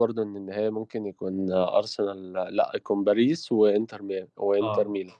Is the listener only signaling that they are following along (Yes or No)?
No